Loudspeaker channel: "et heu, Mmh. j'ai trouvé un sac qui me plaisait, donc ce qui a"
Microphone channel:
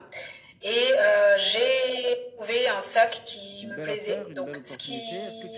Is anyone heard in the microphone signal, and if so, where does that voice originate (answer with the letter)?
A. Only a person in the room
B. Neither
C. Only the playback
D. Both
D